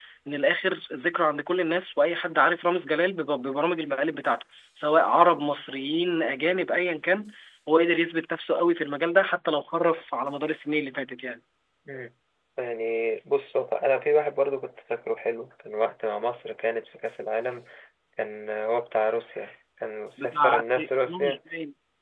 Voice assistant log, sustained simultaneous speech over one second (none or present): present